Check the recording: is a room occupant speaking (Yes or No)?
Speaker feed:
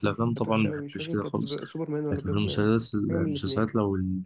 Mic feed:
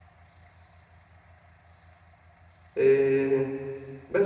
Yes